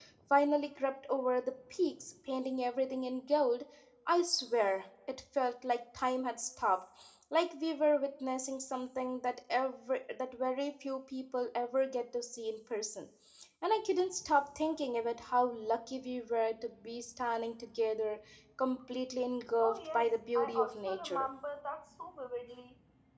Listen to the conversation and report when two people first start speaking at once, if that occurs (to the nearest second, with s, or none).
20 s